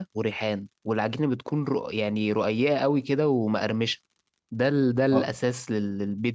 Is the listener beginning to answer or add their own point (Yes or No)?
No